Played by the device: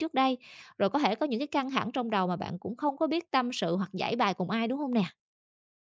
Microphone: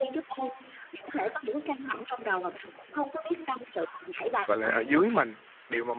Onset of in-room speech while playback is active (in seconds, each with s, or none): 4.5 s